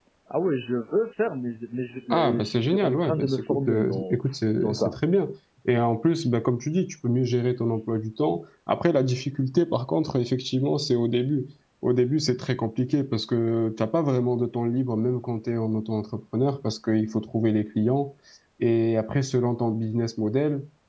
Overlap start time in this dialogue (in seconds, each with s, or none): 2.1 s